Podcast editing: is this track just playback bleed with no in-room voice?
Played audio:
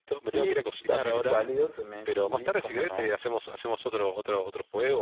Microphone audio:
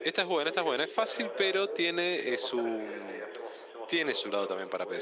No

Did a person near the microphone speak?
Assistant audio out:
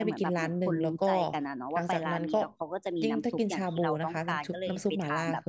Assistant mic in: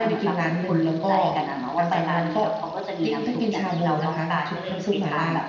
No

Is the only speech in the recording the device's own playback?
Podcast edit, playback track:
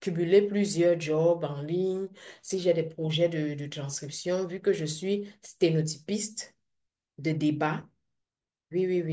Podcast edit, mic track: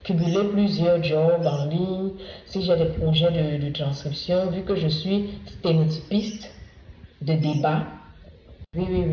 Yes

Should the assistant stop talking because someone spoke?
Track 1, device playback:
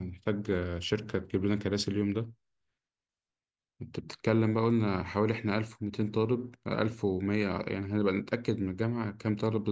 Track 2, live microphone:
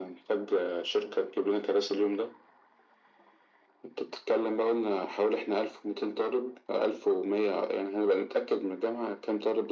No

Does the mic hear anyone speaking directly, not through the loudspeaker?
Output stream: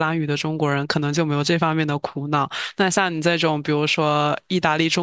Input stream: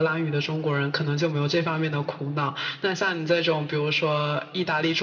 No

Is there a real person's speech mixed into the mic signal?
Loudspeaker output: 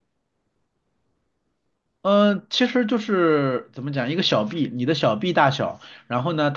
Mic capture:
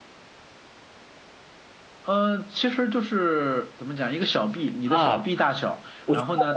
Yes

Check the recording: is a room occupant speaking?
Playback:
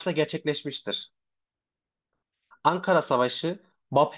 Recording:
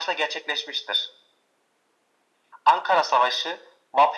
No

